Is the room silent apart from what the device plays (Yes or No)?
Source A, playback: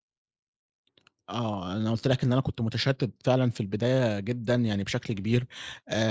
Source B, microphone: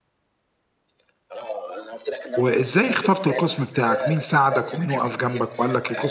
No